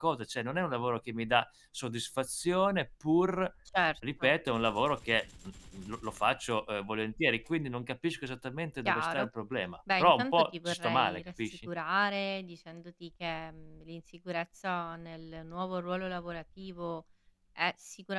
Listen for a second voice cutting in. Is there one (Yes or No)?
Yes